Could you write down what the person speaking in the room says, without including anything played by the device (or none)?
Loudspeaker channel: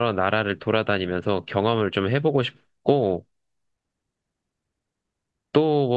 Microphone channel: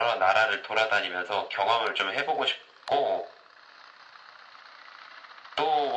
none